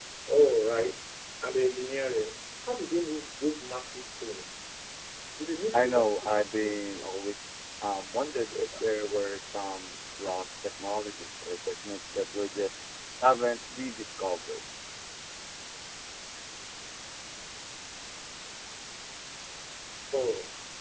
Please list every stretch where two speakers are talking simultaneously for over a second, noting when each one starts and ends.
5.7-7.0

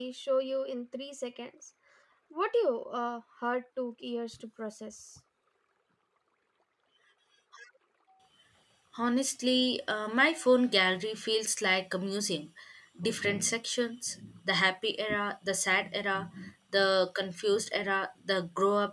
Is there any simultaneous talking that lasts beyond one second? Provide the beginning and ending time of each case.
none

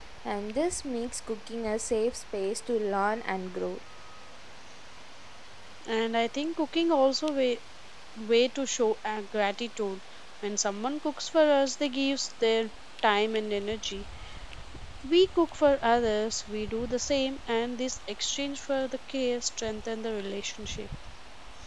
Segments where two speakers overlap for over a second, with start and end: none

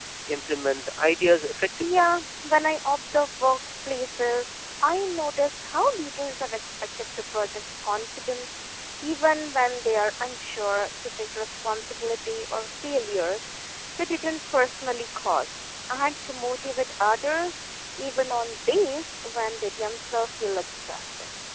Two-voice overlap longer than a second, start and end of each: none

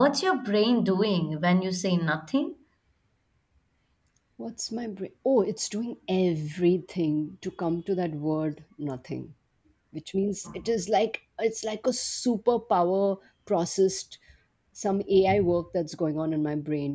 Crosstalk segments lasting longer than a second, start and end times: none

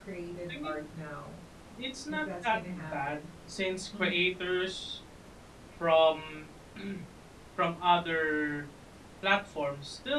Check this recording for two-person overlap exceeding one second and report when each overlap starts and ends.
2.1-3.3

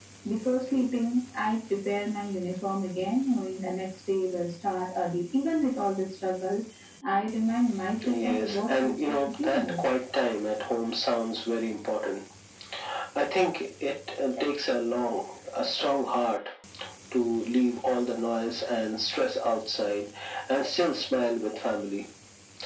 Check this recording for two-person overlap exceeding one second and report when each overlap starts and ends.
8.1-9.8

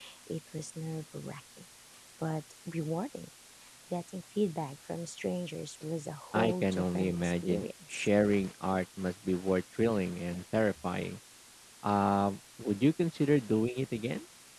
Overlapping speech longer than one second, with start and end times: 6.3-8.1

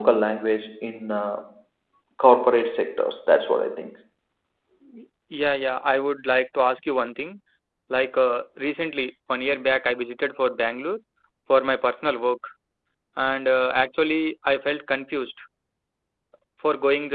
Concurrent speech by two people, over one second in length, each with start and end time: none

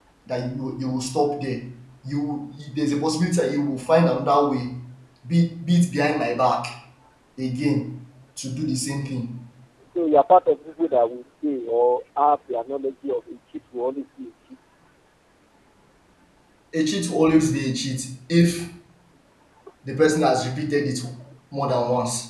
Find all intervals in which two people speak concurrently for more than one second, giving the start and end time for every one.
none

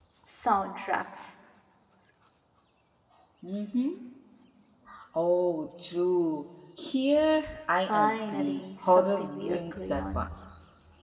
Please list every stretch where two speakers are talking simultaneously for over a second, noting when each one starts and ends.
7.9-10.2

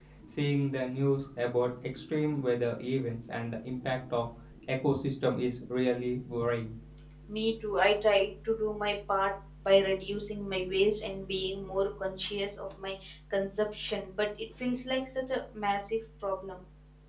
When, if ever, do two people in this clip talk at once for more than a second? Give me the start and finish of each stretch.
none

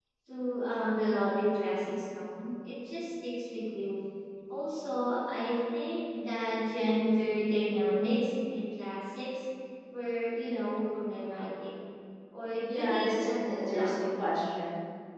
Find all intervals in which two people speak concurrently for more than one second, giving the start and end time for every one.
12.7-14.3

